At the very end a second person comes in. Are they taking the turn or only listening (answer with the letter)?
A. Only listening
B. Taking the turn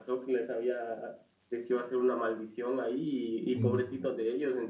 A